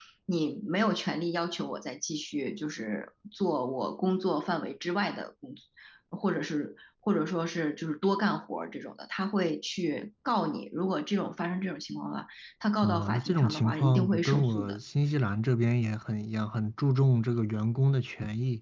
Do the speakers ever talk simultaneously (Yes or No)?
Yes